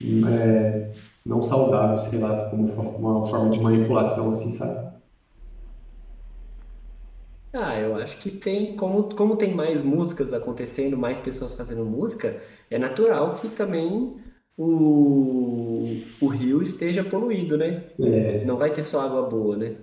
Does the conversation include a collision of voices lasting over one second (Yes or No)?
No